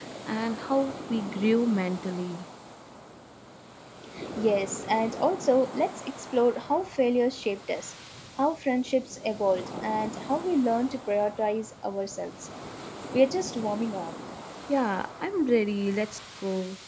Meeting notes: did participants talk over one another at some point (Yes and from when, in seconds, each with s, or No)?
No